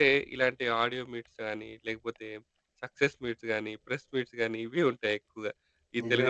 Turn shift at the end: No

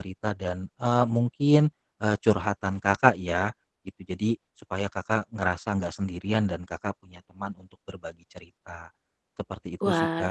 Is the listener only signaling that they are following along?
No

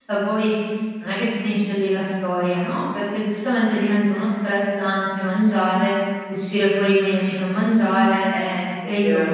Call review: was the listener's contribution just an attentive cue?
Yes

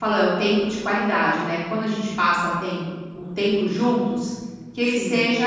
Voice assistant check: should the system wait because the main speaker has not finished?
Yes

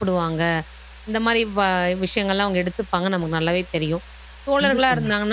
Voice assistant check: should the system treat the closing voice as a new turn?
No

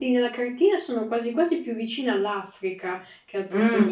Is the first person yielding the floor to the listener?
Yes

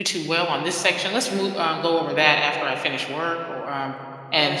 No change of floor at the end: Yes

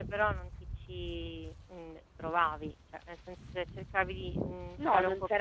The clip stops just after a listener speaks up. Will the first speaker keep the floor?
No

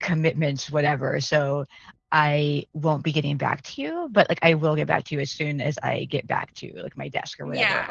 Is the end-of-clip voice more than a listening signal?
Yes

